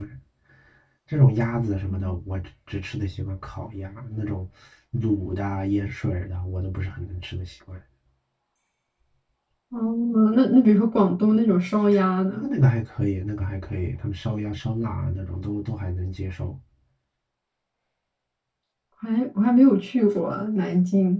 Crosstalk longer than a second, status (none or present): none